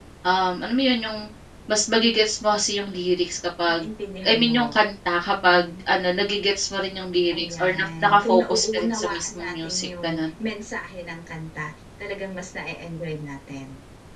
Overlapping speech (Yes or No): Yes